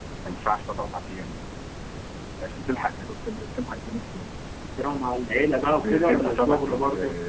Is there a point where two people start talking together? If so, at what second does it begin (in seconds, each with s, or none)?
5.6 s